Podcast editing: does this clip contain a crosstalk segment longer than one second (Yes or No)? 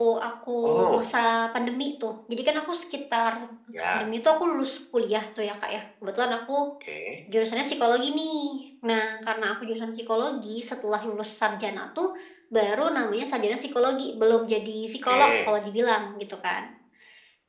No